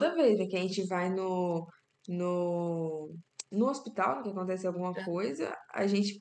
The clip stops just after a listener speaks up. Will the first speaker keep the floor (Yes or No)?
Yes